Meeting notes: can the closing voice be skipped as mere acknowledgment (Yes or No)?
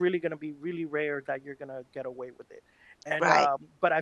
Yes